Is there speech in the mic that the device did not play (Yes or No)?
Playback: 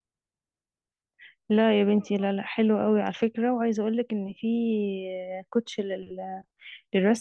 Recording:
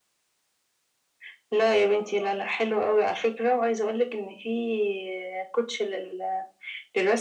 No